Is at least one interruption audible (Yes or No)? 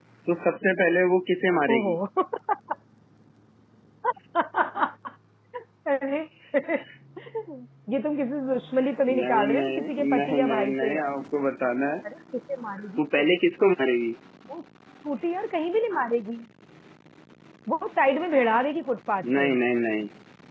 Yes